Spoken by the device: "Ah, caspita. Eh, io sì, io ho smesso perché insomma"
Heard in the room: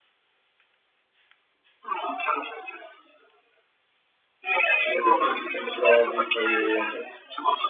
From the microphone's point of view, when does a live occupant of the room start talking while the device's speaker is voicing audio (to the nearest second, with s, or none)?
5 s